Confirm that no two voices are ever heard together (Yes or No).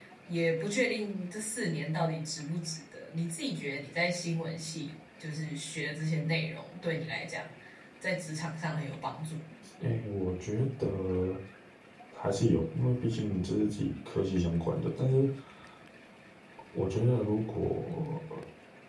Yes